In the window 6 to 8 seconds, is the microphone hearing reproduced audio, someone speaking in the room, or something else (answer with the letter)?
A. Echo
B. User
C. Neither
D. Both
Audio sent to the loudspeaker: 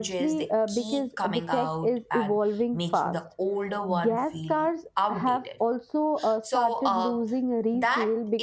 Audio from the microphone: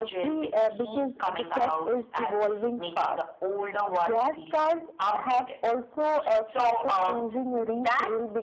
A